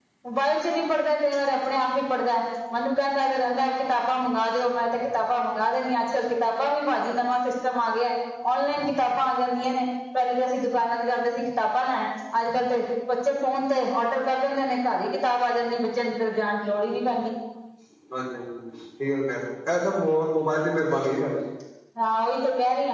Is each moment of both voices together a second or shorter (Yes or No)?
Yes